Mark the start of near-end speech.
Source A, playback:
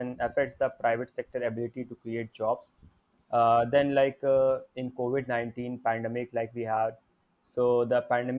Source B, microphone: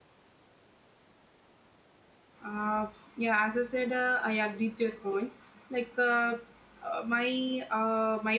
2 s

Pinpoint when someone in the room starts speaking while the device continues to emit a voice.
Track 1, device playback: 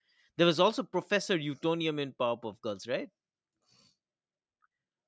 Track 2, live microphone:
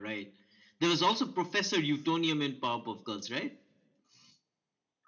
none

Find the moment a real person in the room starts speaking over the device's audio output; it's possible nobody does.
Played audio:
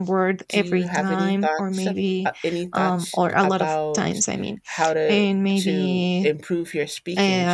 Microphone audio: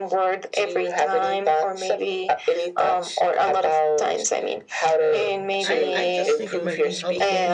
5 s

